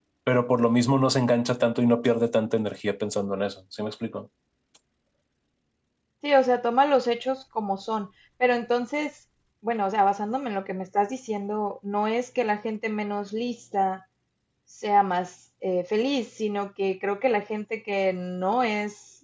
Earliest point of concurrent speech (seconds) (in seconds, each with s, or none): none